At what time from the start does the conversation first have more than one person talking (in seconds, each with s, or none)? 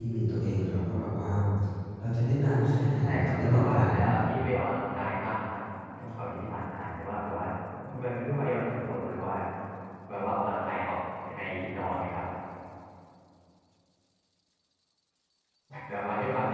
3.0 s